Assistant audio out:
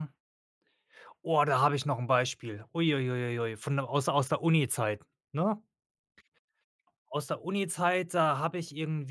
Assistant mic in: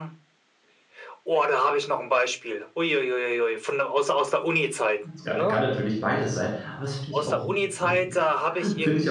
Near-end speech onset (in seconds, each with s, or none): 5.1 s